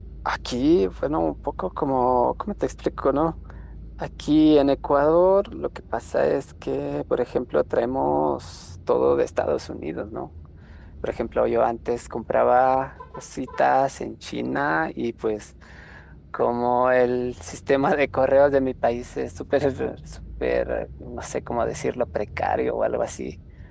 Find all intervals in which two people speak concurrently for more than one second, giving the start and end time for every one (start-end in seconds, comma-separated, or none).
none